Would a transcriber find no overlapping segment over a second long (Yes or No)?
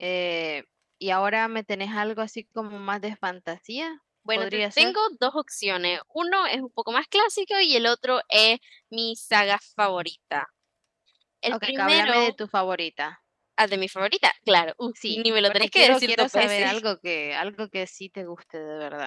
No